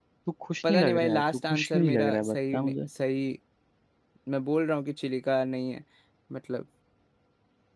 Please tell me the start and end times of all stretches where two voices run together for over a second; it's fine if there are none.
0.7-2.9

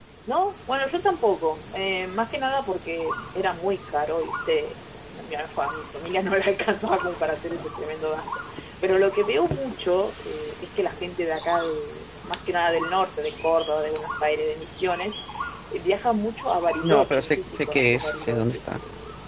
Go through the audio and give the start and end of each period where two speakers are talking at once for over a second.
16.8-18.6

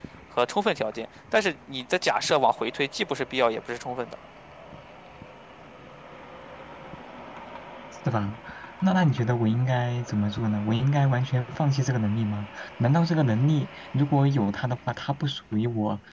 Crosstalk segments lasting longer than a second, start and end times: none

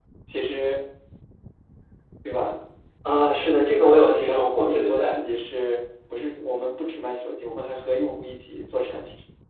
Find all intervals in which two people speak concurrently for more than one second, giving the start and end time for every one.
3.8-5.2

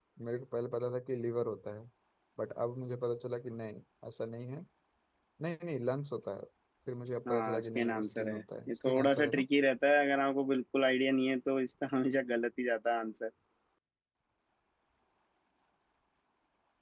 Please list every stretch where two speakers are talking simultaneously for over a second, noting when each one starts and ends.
7.3-9.4

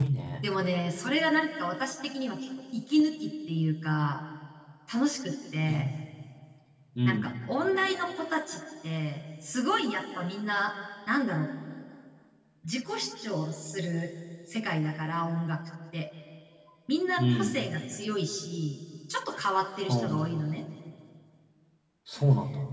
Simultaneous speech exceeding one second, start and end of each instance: none

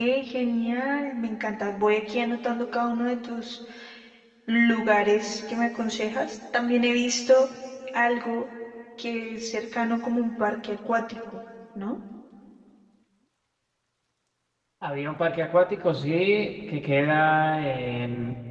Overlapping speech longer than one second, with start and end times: none

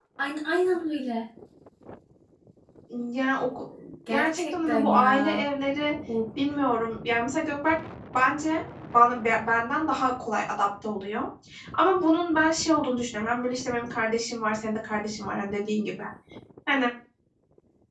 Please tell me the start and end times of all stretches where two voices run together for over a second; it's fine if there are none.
4.1-5.4

